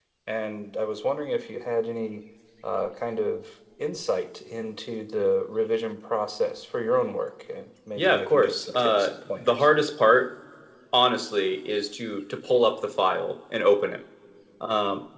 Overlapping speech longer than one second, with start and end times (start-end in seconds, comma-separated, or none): 8.0-9.7